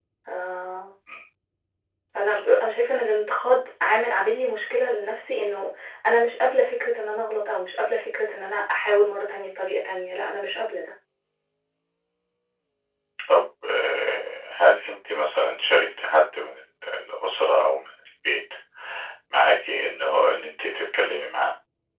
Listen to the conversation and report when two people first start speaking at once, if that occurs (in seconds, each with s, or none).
none